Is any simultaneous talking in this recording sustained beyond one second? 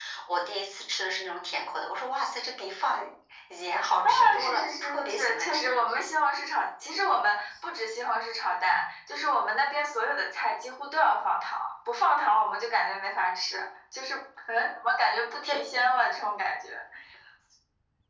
Yes, from 4.0 s

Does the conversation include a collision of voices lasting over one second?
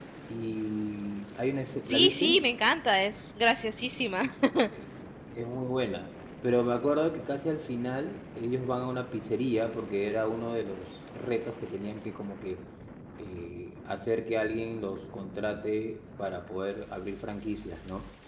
No

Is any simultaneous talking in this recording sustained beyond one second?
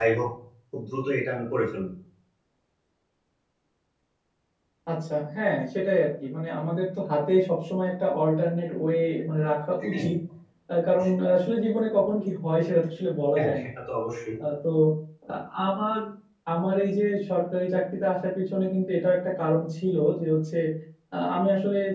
No

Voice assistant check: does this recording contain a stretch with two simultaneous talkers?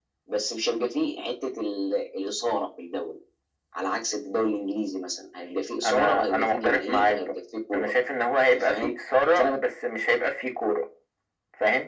Yes, from 5.8 s

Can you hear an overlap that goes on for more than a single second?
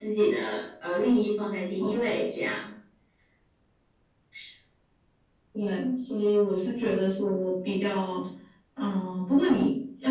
No

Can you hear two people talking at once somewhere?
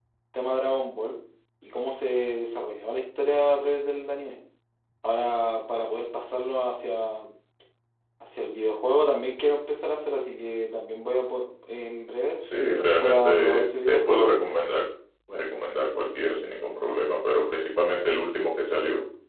Yes, from 12.4 s

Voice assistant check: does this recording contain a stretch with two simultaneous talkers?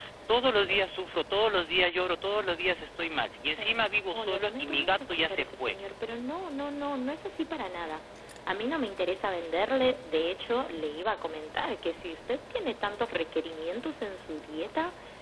Yes, from 3.6 s

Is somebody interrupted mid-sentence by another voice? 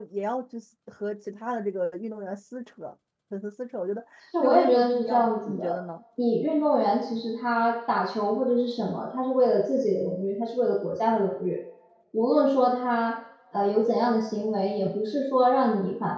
Yes, from 4.3 s

